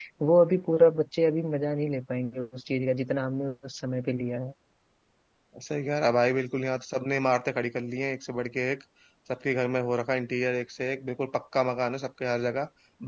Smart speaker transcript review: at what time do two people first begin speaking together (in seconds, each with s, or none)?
none